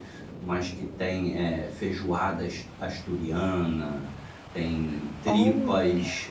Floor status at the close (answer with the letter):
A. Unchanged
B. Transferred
A